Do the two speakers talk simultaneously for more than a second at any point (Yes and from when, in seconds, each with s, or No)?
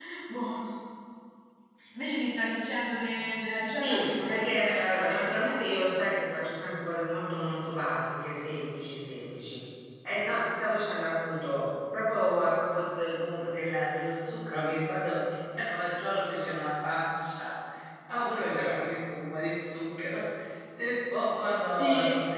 Yes, from 3.6 s